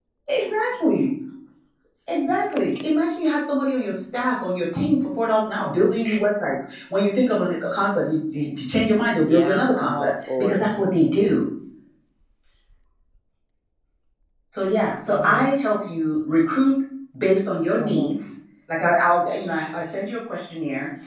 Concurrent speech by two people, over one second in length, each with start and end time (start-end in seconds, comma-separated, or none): 9.3-10.6